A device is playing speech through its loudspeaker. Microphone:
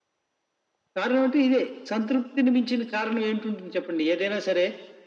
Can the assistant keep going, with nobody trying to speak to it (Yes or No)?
Yes